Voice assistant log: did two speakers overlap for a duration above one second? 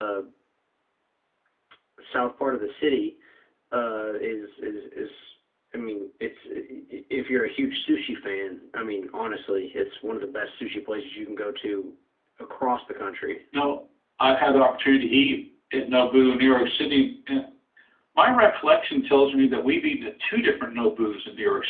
No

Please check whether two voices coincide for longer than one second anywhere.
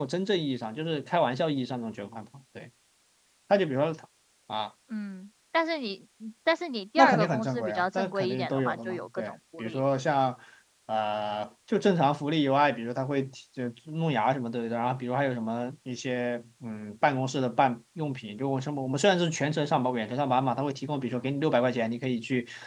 Yes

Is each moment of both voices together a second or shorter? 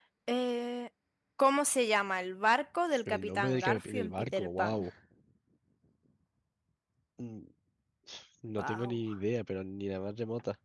No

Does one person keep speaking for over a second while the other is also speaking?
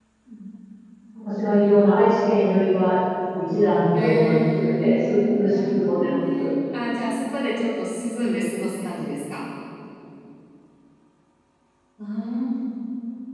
Yes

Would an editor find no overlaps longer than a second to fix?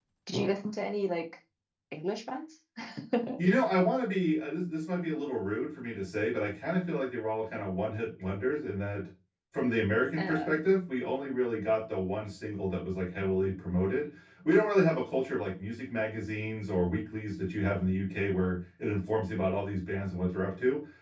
Yes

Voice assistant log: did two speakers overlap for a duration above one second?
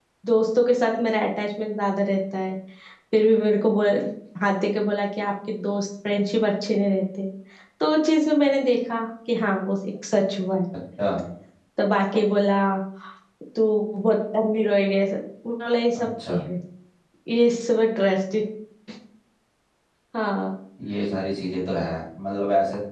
No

